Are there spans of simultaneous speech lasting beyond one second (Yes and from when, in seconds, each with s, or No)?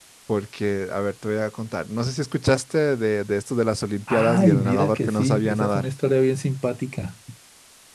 Yes, from 4.1 s